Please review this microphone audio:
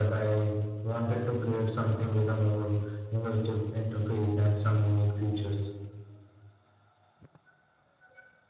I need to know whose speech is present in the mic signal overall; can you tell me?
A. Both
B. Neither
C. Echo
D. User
C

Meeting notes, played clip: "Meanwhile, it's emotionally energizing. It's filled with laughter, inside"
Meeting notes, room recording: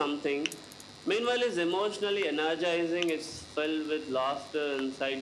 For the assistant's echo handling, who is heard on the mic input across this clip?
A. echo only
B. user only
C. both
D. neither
A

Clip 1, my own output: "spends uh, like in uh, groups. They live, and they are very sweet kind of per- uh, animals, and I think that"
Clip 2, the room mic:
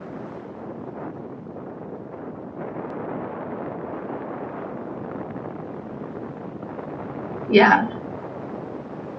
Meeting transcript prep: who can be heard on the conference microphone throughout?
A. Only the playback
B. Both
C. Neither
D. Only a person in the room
D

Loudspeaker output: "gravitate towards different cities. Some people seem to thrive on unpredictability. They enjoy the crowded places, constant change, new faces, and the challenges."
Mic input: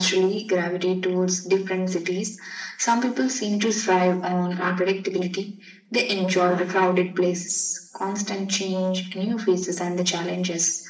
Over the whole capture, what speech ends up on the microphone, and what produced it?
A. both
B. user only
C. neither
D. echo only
D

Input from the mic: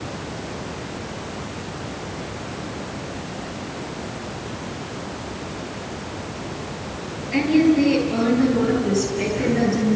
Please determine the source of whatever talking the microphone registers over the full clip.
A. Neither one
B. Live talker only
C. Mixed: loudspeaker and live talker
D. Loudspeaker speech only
B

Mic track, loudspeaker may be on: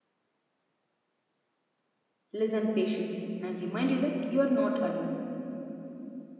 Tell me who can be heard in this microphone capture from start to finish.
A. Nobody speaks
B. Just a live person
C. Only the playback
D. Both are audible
B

